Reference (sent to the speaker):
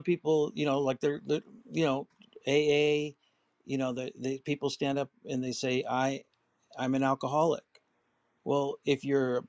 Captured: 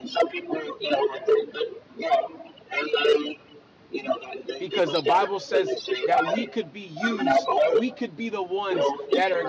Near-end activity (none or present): present